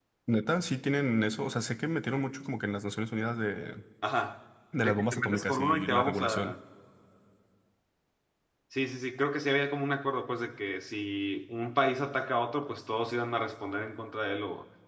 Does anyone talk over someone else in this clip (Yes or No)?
Yes